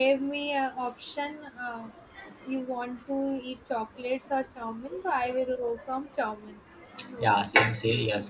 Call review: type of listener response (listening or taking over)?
taking over